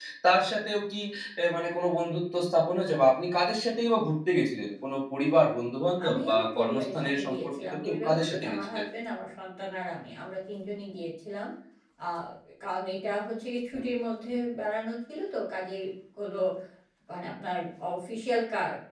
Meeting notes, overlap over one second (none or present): present